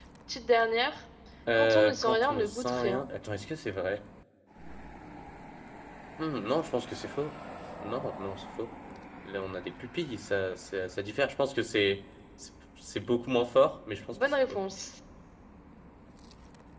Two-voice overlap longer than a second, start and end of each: 1.6-3.0

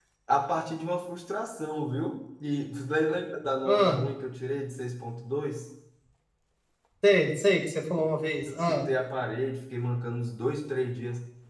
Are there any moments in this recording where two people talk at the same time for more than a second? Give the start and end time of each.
none

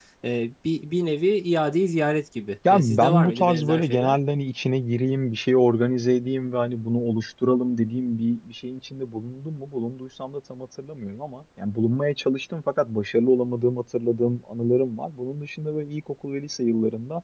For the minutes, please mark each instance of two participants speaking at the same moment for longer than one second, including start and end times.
2.7-4.2

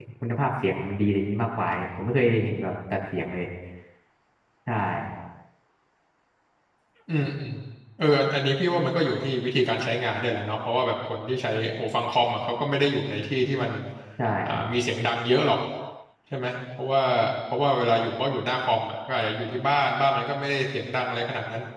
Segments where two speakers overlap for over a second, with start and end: none

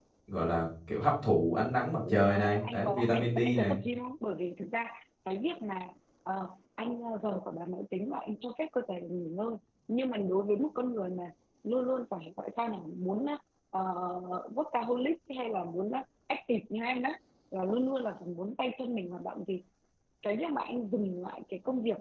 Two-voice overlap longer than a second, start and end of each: 2.1-3.8

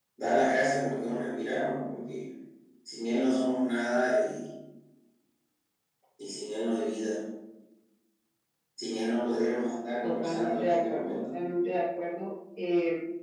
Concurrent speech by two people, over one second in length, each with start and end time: 10.0-11.3

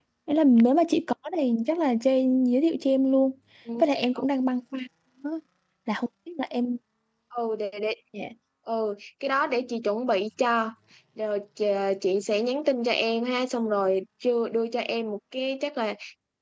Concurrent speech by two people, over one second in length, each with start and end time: none

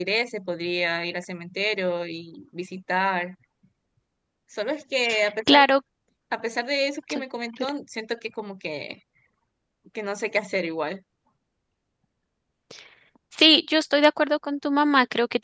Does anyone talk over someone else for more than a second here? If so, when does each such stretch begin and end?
none

